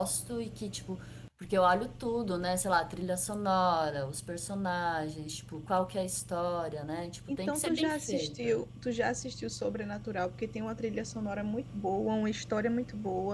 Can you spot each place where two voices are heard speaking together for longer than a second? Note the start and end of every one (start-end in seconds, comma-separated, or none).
7.3-8.6